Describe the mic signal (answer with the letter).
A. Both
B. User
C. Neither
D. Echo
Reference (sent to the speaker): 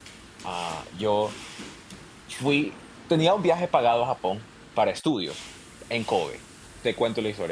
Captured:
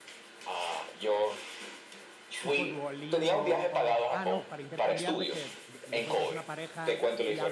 A